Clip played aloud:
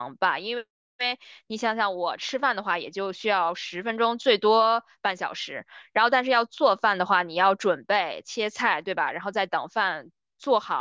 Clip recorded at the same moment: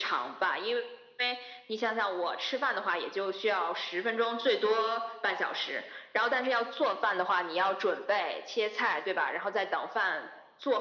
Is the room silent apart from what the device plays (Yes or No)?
Yes